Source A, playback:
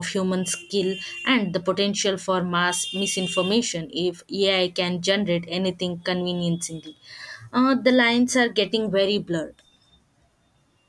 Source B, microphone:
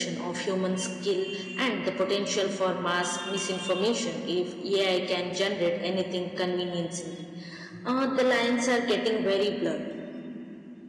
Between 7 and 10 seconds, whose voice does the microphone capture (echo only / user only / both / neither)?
echo only